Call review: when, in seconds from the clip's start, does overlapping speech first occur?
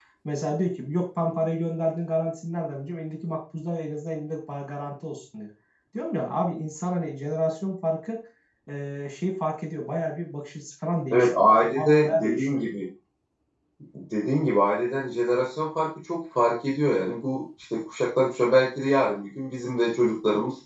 11.1 s

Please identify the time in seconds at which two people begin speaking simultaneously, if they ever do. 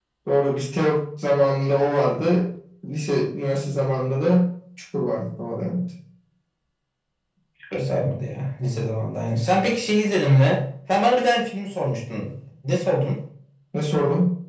none

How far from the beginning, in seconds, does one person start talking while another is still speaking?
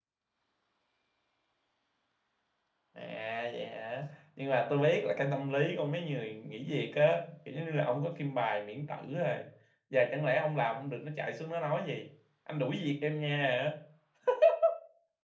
none

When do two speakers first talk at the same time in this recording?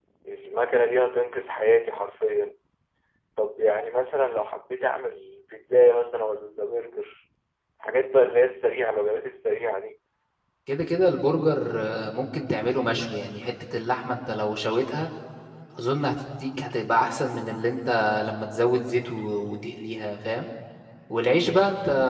none

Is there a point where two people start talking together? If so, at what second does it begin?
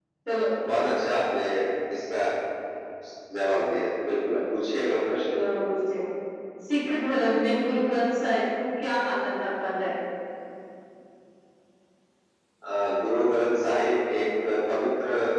none

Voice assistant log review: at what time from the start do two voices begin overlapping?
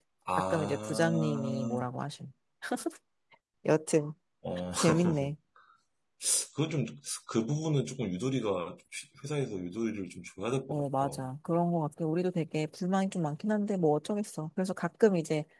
0.5 s

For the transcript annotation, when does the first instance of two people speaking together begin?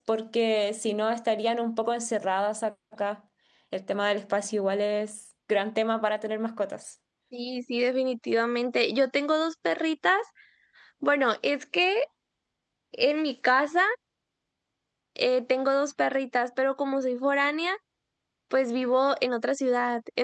none

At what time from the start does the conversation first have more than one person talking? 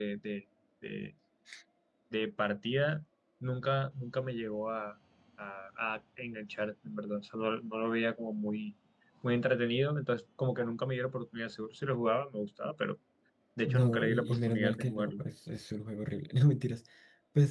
13.7 s

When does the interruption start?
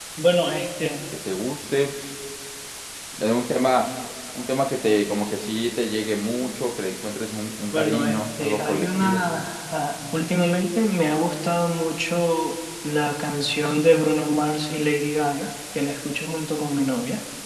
7.7 s

